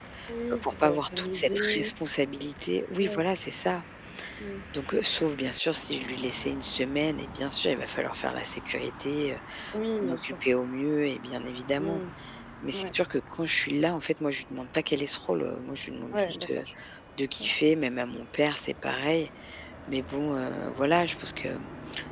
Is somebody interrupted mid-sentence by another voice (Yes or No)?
Yes